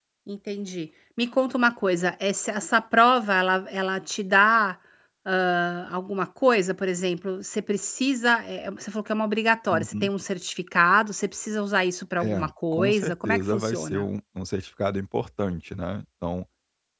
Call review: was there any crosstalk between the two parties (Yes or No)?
Yes